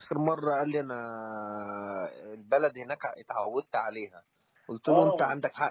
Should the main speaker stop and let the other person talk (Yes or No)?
No